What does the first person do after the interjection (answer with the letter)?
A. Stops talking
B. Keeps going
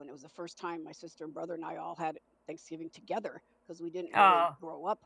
B